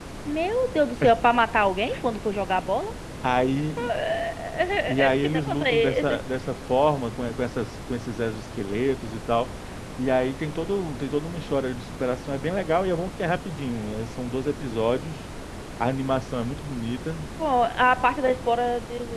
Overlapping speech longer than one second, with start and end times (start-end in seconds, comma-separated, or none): 4.9-6.2